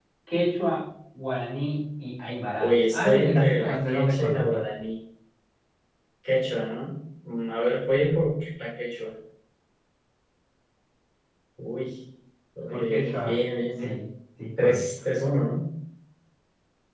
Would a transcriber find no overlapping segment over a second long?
No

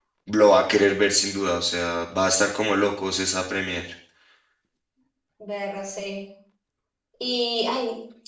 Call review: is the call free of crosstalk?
Yes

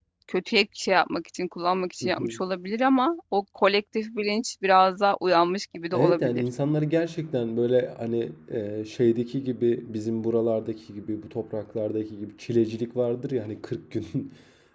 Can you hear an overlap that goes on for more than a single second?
No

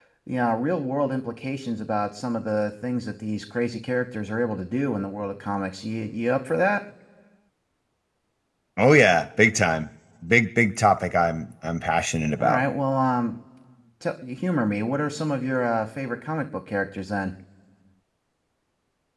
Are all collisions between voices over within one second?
Yes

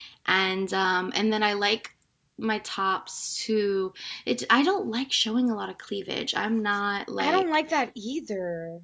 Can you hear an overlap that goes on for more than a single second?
No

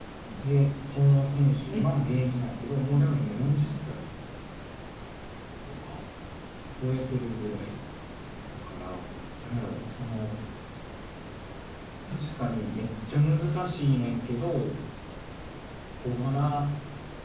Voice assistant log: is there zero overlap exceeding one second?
No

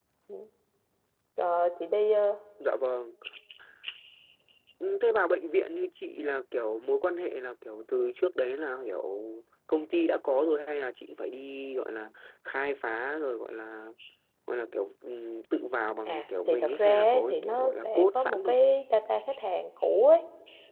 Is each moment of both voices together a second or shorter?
No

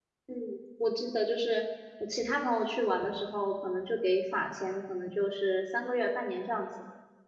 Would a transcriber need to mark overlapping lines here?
No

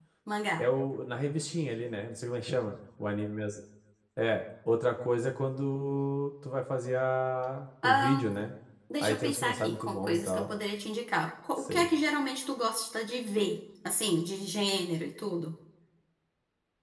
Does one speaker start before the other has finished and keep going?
Yes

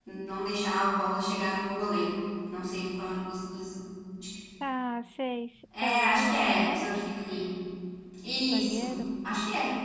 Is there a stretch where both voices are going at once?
Yes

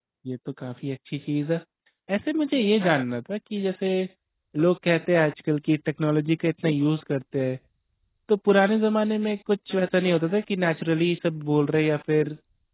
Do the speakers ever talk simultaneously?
No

